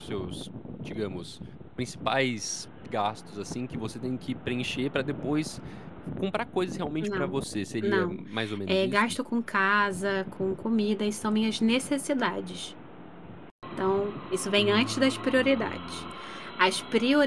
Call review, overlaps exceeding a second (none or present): present